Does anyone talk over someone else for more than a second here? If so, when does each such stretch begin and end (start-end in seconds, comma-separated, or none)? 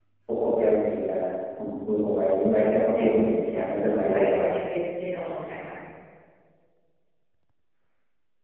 2.9-4.5